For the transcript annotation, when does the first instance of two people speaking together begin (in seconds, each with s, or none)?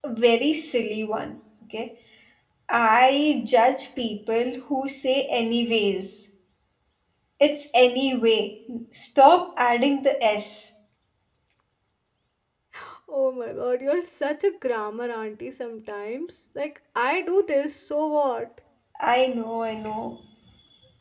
none